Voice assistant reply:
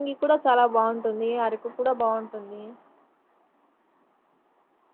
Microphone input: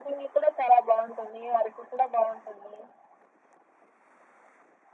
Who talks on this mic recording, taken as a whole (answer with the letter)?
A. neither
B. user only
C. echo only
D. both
C